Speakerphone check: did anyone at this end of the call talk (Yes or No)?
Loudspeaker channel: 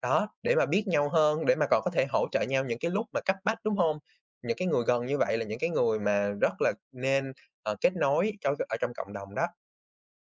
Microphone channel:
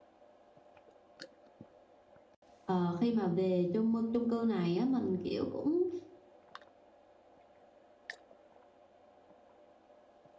Yes